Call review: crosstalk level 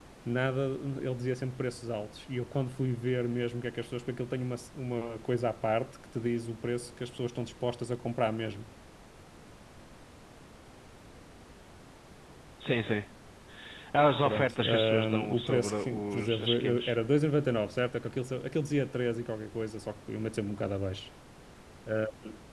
present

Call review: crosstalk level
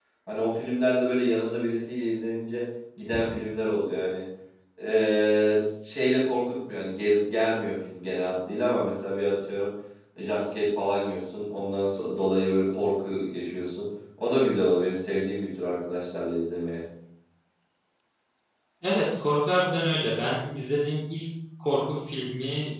none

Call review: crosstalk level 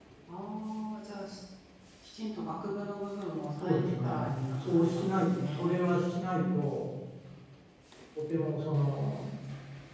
present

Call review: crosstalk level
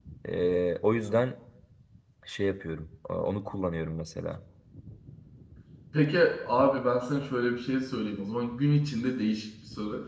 none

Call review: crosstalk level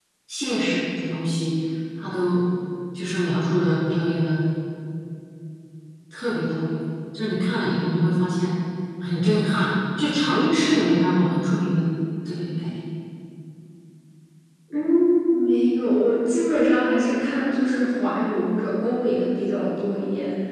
none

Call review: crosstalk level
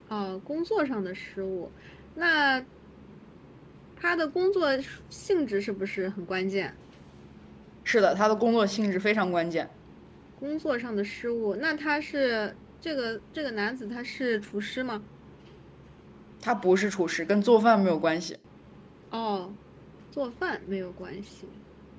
none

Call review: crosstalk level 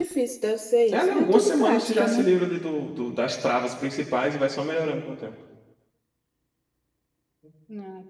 present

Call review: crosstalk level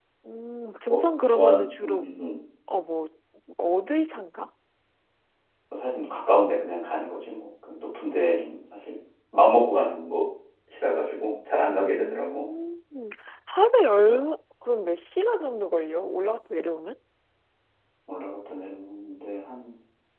present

